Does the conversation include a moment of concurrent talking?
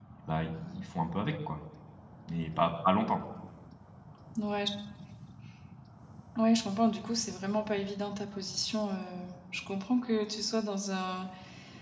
No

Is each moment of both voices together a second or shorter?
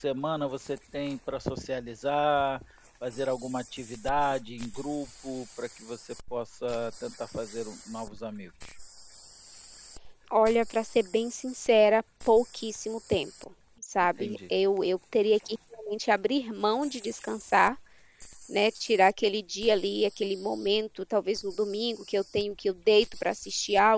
Yes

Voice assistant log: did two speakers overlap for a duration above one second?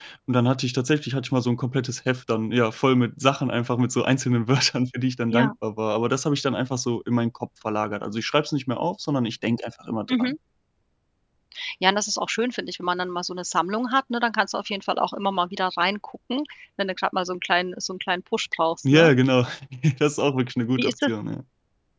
No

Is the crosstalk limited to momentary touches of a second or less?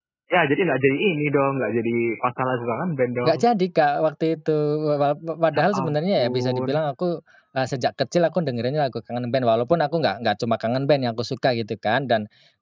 No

